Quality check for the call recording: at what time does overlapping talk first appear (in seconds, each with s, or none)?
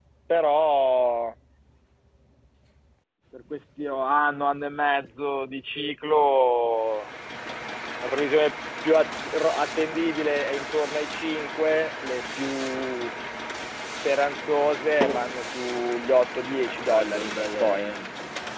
16.6 s